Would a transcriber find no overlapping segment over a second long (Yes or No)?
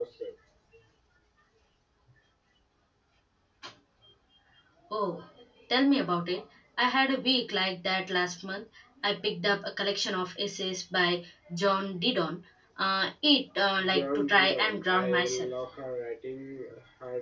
No